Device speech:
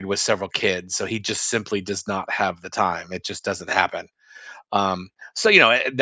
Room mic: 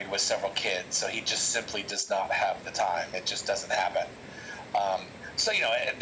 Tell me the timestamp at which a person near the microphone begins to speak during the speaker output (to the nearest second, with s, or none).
none